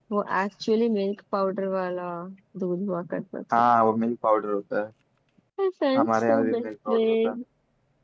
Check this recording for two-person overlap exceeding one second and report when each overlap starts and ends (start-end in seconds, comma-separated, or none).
6.0-7.3